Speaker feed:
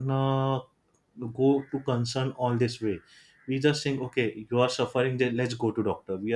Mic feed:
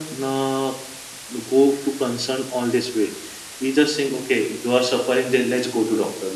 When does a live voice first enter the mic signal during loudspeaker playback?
none

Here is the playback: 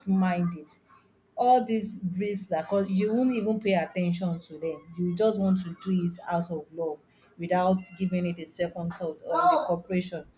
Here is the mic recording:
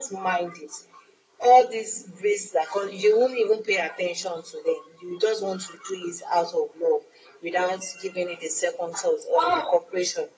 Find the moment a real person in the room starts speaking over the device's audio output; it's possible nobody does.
none

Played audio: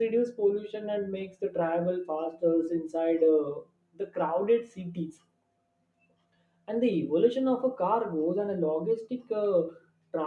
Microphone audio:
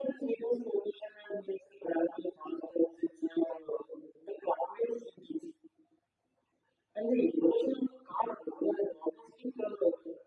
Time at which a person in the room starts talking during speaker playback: none

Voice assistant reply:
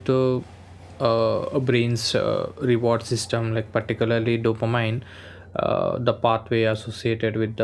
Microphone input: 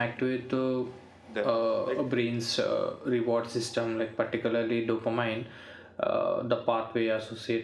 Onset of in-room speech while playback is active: 1.3 s

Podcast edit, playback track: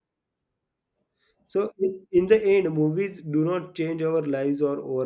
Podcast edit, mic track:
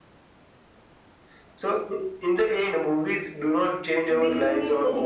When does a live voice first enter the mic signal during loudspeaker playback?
4.1 s

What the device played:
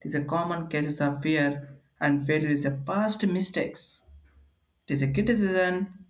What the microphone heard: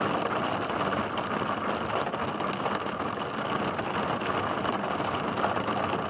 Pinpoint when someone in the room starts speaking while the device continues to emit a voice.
none

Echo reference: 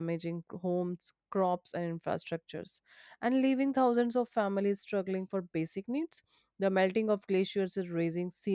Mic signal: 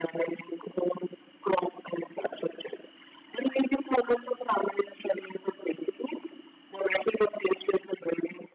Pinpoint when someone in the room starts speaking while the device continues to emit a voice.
none

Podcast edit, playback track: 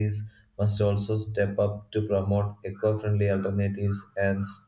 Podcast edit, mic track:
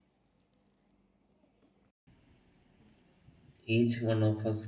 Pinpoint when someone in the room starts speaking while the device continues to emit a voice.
3.6 s

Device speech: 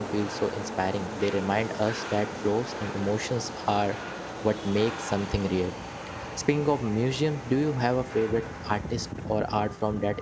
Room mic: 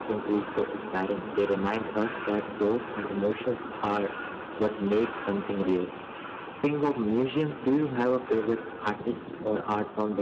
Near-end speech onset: none

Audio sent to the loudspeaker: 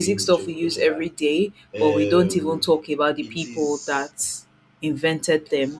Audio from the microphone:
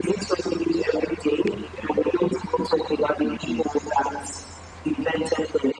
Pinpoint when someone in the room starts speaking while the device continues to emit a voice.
none

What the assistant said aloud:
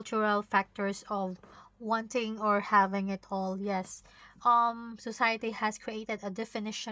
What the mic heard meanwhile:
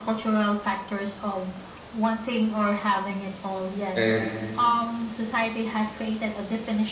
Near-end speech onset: 3.9 s

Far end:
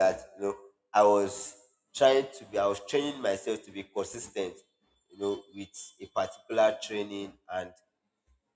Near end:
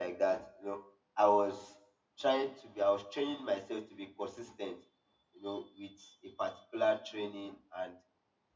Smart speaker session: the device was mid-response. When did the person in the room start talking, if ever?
none

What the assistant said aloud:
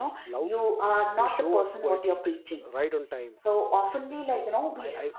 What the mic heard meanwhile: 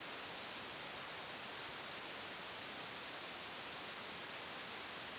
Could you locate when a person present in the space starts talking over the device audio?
none

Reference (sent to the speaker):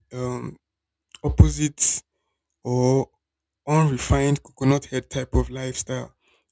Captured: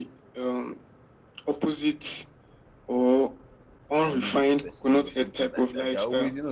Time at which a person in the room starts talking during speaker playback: 4.1 s

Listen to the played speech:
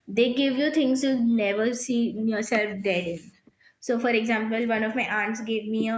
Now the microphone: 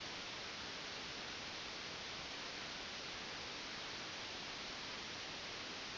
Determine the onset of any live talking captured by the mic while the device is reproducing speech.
none

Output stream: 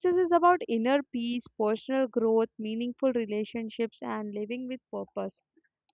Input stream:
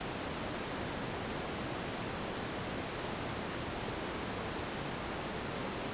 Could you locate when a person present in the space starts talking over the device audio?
none

